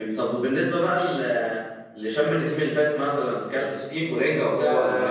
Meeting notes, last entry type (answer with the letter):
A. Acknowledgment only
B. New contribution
B